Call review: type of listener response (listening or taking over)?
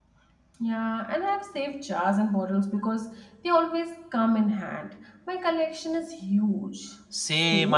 taking over